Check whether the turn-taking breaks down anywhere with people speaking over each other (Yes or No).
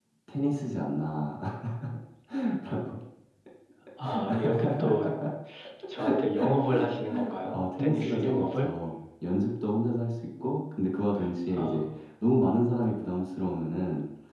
Yes